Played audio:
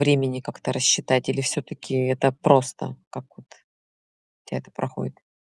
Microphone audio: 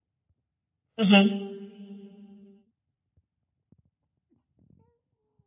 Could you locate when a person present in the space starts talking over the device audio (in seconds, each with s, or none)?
1.0 s